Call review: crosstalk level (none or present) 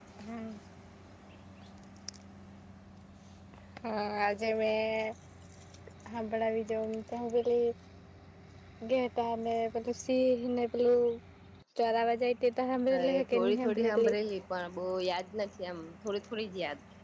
present